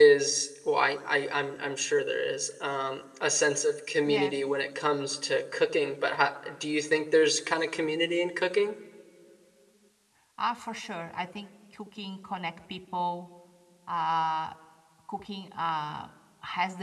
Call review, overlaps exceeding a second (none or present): none